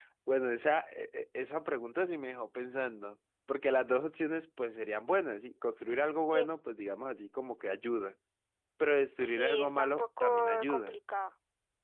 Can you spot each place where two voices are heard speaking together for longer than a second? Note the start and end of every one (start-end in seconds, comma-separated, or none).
9.2-11.0